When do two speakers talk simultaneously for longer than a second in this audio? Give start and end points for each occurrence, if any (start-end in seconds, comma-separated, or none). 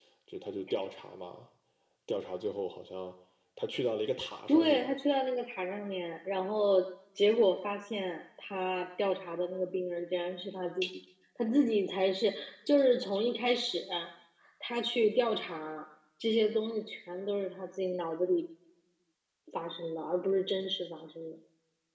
none